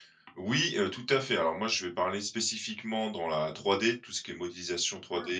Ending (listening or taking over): listening